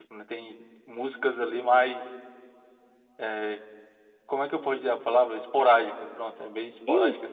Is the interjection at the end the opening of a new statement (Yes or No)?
Yes